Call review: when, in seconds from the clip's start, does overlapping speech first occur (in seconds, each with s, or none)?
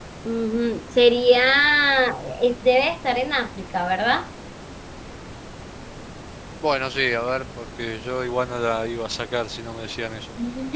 none